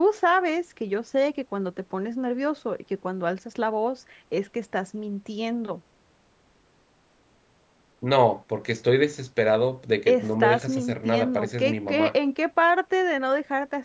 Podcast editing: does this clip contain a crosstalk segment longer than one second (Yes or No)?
Yes